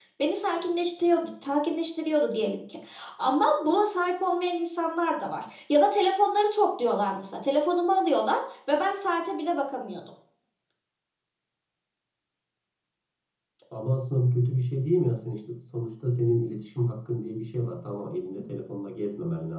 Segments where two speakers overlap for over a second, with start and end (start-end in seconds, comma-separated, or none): none